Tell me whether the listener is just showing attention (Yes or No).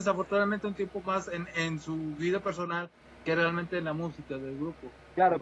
No